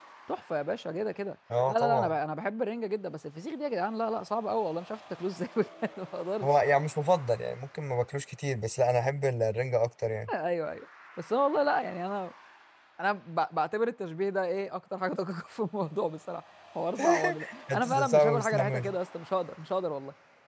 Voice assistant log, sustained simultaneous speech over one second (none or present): present